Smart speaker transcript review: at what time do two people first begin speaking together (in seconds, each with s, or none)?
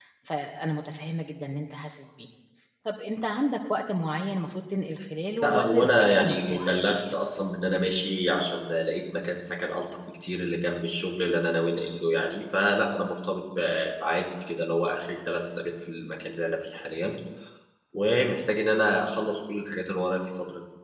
5.4 s